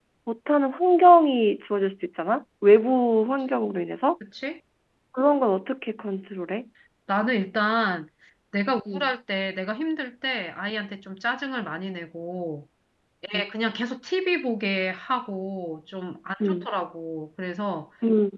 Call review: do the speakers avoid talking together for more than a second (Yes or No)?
Yes